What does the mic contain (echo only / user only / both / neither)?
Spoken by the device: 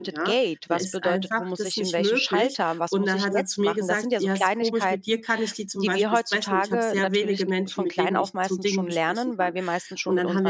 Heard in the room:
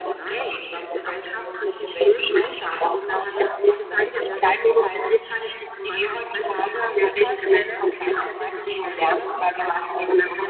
both